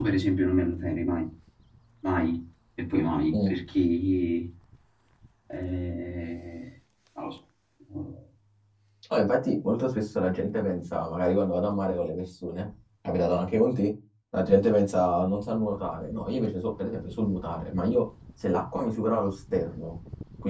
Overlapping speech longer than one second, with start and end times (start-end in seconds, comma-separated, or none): none